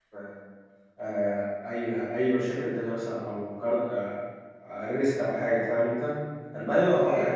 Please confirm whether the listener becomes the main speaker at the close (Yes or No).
No